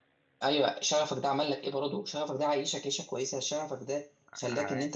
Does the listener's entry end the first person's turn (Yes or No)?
No